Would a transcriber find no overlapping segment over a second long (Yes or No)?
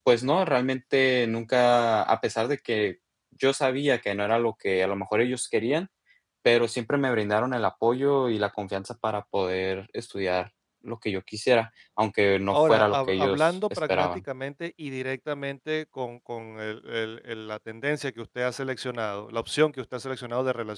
No